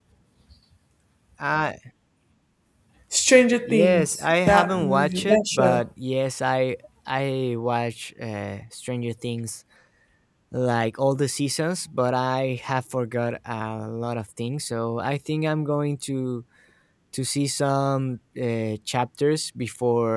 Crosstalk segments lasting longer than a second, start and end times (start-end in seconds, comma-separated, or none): 3.6-5.8